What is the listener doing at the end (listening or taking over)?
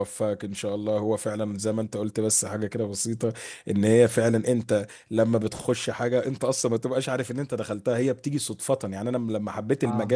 listening